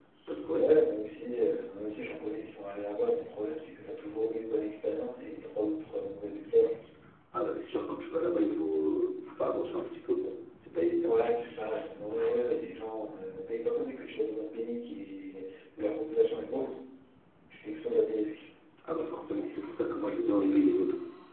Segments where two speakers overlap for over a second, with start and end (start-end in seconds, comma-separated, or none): none